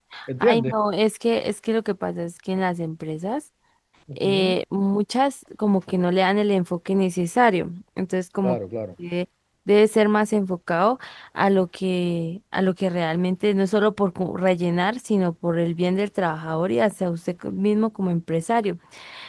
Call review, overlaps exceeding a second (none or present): none